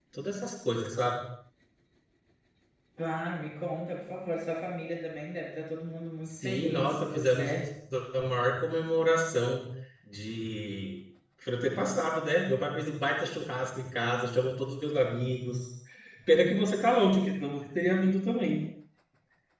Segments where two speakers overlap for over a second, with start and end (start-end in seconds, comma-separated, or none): 6.3-7.5